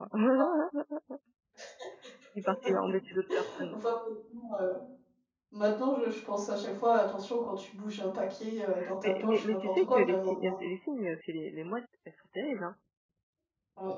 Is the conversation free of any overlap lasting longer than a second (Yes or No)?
No